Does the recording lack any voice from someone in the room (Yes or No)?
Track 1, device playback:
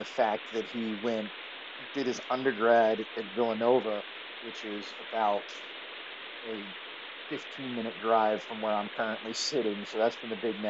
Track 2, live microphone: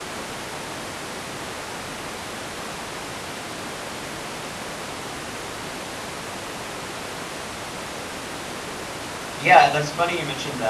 No